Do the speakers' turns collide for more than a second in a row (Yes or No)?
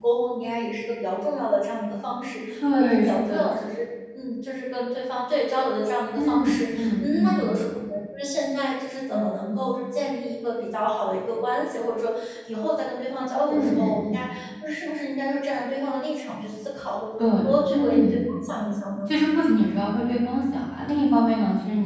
Yes